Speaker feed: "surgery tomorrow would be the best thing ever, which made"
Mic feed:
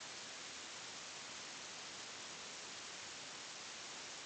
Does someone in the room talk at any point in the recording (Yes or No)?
No